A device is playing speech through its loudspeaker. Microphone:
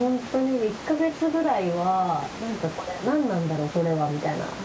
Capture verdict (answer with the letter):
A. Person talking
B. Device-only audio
B